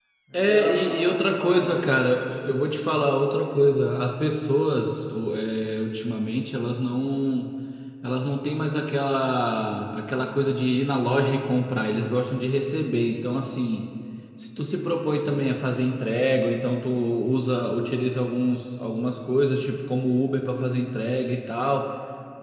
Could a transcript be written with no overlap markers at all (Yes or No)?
No